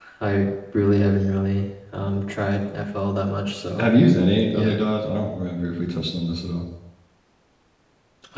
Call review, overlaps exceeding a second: none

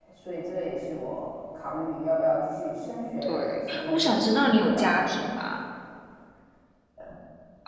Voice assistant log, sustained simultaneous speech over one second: present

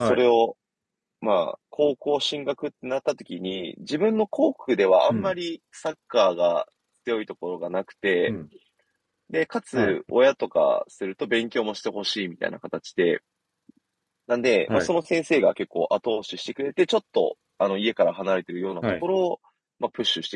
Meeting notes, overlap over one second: none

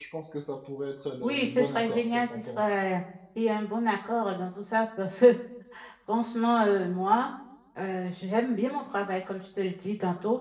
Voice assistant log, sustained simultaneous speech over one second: present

